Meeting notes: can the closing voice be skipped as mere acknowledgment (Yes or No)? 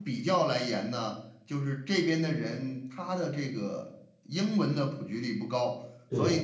Yes